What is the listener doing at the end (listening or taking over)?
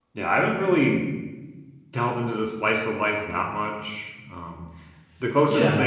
listening